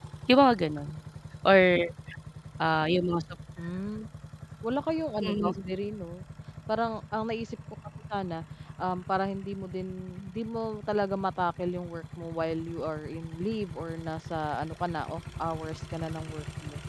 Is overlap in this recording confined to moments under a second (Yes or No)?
Yes